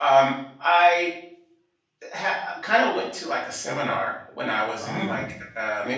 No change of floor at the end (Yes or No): Yes